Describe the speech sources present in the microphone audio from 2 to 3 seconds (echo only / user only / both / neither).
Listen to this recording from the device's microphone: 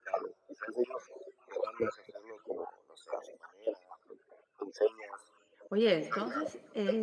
echo only